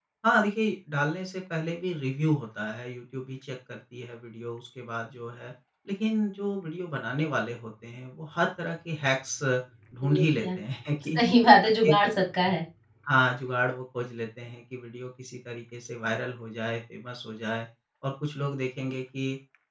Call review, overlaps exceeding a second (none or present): none